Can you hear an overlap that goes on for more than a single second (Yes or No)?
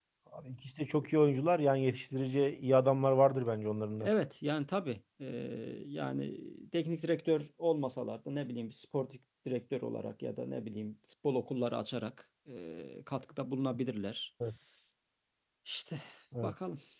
No